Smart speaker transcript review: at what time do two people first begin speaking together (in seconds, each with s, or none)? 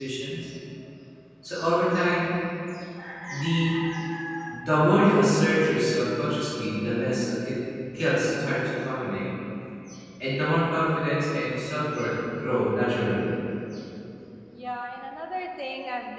none